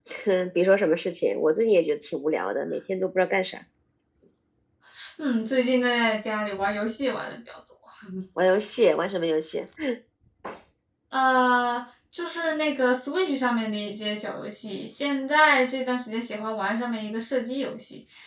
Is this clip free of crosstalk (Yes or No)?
Yes